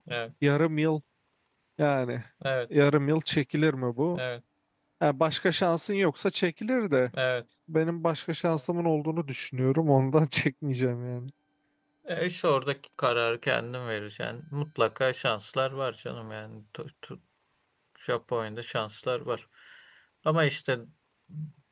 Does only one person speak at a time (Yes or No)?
Yes